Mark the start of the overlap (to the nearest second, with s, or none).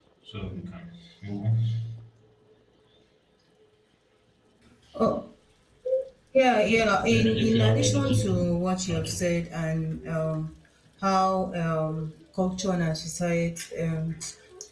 7 s